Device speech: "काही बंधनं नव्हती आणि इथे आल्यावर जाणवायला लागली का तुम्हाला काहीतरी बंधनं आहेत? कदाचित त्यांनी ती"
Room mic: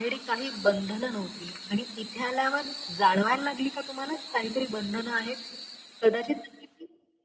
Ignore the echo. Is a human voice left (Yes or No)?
No